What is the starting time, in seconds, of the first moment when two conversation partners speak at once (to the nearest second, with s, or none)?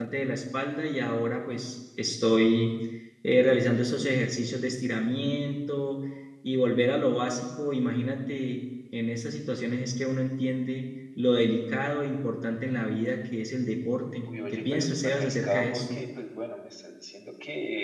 15 s